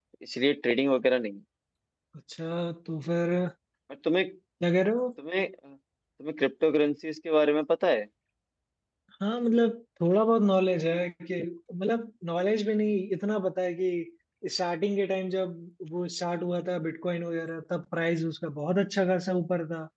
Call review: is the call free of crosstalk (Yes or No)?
Yes